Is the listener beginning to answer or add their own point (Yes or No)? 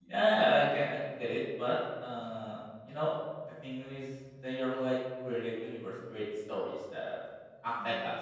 No